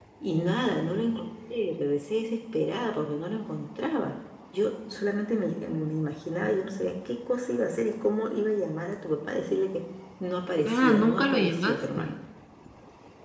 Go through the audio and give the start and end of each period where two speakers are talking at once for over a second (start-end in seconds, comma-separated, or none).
10.6-12.2